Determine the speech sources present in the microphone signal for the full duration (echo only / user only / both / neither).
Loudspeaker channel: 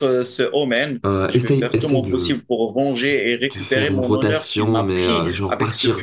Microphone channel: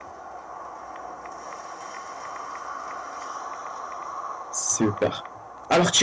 user only